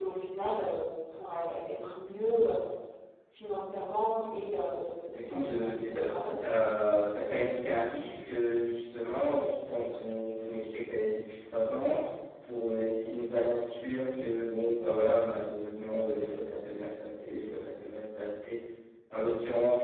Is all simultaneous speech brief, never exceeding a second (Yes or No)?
No